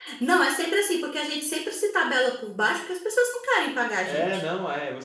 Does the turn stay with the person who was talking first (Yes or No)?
No